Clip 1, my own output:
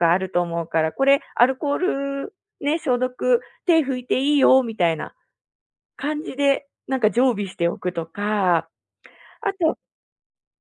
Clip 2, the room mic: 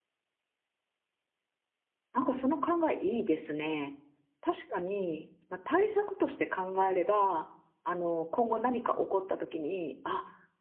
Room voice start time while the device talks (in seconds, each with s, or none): 2.1 s